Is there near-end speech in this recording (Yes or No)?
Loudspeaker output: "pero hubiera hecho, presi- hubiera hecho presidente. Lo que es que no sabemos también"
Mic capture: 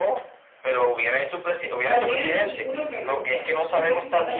Yes